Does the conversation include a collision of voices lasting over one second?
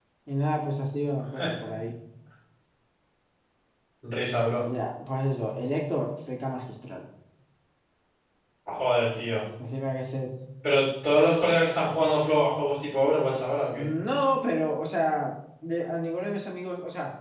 No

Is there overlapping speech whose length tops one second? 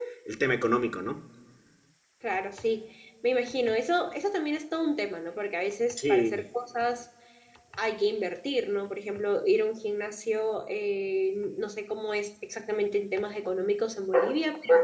No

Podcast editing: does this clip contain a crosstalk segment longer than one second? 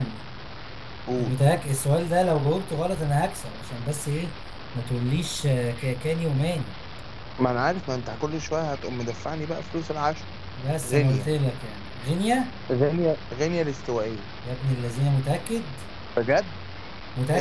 No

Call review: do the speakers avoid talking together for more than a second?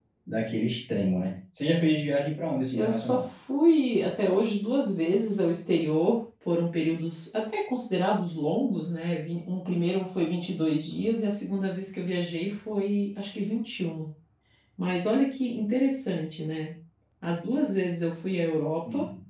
Yes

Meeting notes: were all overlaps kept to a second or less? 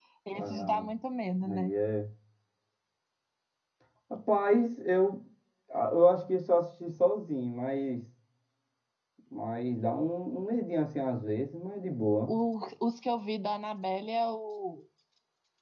Yes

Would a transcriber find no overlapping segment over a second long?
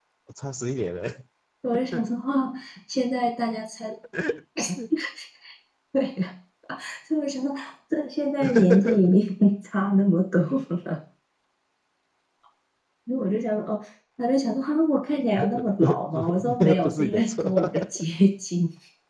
No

